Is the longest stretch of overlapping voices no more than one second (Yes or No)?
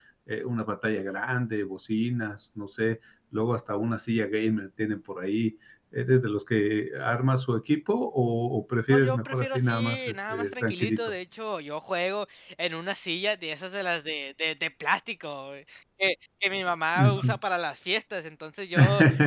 No